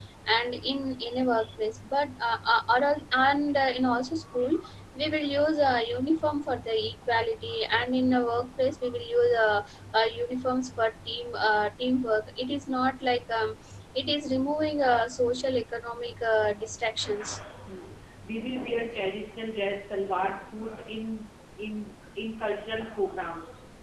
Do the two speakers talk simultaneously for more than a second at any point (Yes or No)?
No